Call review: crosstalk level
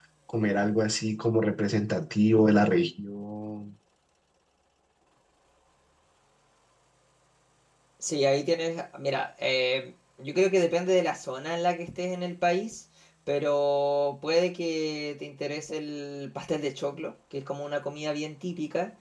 none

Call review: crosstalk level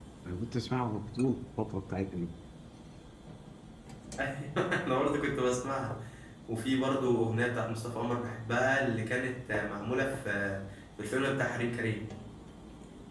none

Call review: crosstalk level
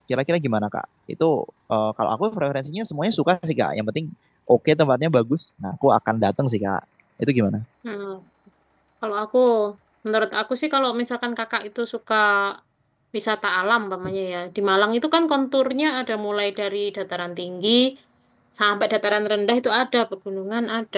none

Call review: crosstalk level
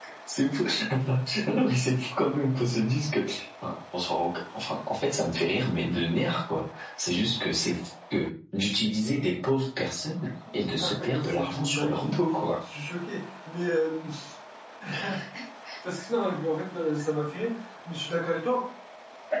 present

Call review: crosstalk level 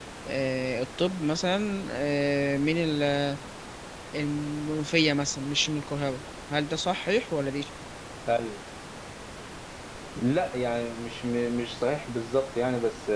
none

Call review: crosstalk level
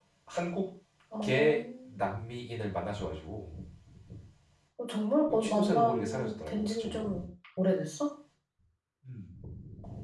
present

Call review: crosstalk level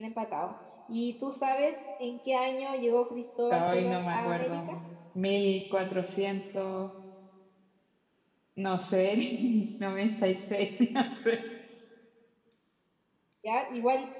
present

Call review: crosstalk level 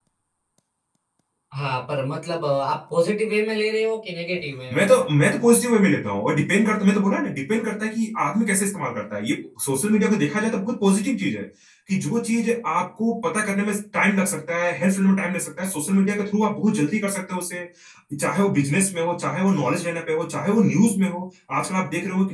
none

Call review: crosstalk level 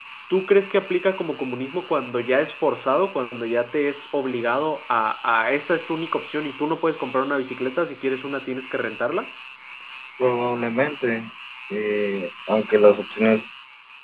none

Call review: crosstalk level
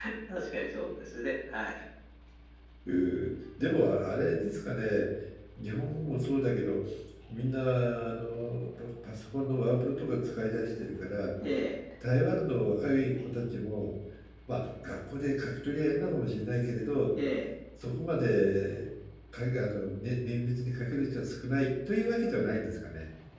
none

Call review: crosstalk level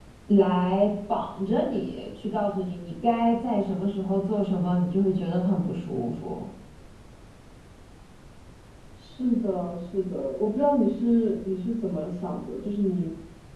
none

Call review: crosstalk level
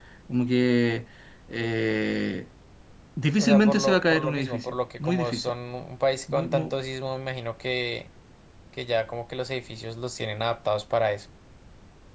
present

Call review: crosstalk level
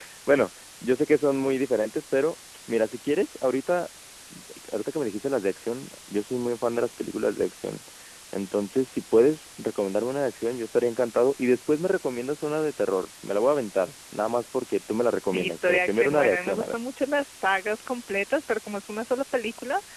present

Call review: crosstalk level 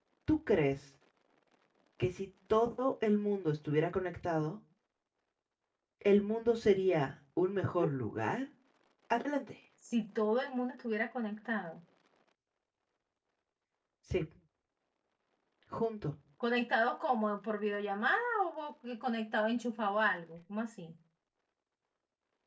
none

